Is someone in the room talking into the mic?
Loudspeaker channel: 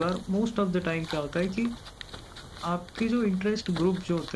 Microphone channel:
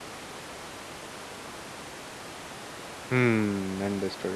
Yes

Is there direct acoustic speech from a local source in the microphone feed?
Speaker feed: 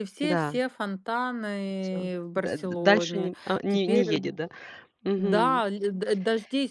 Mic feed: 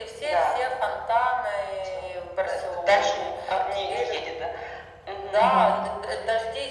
Yes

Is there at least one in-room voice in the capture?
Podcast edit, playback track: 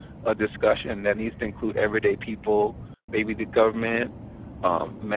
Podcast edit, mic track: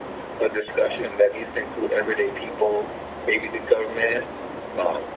No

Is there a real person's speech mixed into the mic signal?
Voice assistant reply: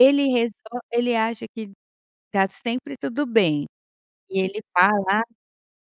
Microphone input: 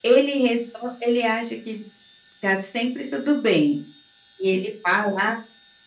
No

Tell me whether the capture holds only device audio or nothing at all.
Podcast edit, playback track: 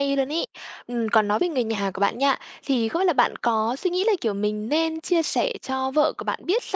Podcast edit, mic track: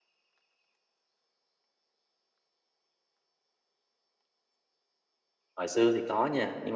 No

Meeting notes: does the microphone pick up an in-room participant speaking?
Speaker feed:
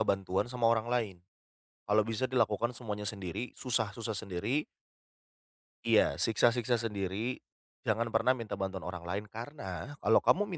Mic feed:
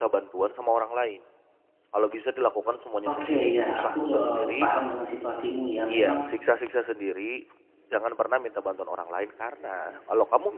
Yes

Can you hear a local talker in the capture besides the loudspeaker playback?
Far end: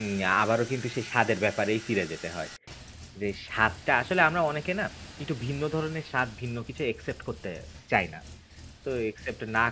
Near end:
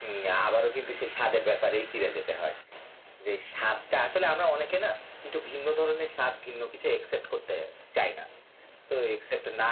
No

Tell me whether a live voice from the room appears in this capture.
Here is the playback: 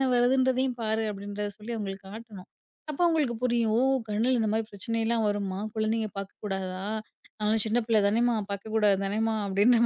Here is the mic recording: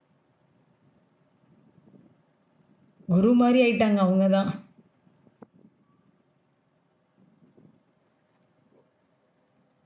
Yes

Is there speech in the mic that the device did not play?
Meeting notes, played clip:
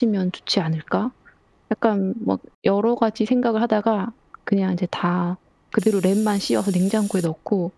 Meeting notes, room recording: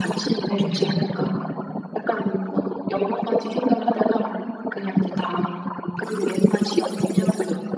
Yes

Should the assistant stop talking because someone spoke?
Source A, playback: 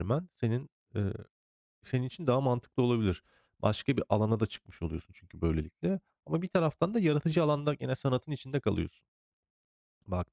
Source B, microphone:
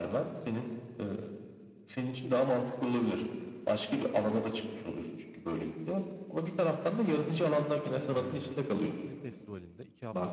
Yes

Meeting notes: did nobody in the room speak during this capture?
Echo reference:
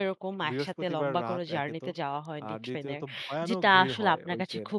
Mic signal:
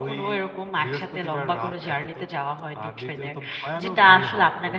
Yes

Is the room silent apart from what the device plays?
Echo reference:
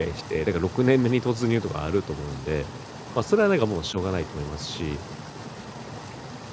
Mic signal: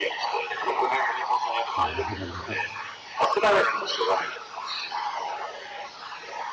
No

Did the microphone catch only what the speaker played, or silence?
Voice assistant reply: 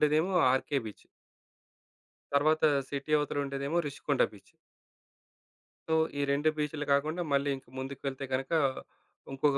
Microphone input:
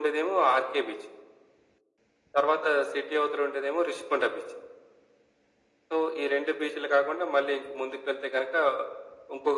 Yes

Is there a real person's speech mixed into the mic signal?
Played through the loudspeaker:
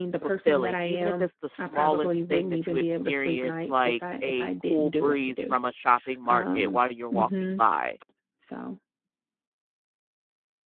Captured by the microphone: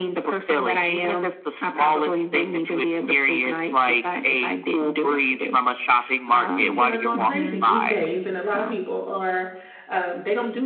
Yes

